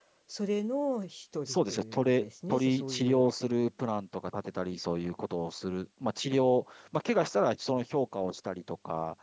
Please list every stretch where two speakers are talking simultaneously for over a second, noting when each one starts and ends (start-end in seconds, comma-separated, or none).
1.5-3.2